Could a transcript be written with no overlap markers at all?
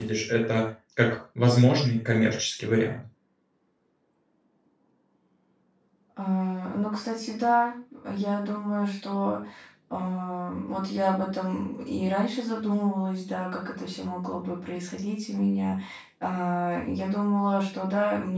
Yes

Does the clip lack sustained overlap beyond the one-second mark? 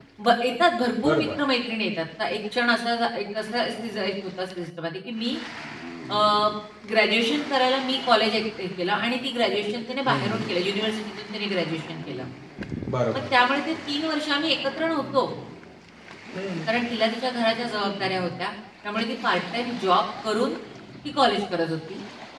Yes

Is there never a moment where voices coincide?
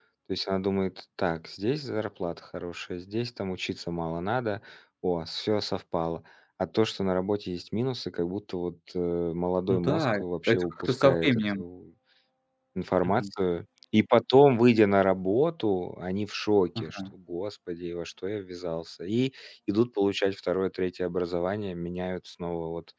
No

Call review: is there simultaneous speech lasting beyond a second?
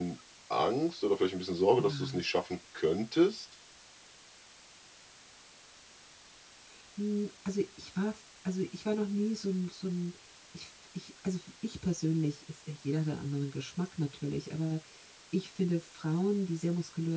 No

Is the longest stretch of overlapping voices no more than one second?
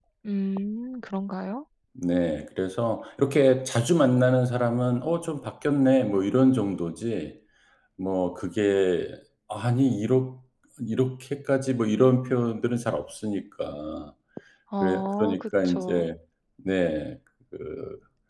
No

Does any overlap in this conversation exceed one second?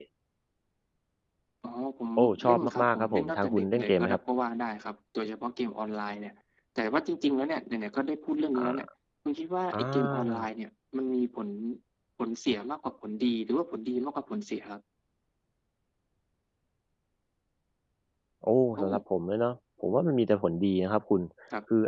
Yes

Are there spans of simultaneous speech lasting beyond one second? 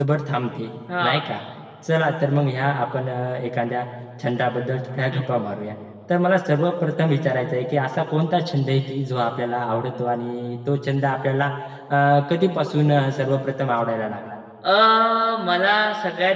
No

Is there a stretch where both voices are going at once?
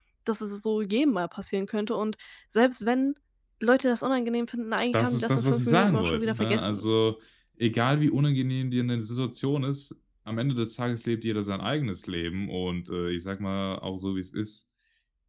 Yes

